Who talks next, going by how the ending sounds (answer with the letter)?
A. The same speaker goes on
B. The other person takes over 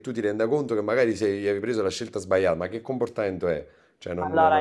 B